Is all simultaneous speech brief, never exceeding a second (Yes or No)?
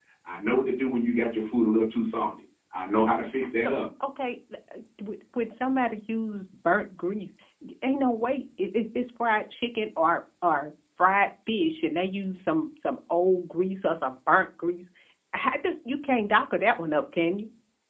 Yes